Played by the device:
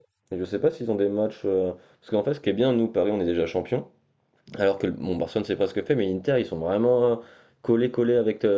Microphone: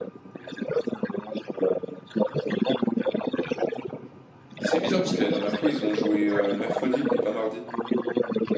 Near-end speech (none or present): present